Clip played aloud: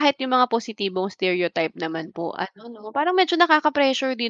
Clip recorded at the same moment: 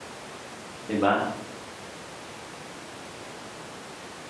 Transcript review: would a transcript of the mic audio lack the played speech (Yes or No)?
Yes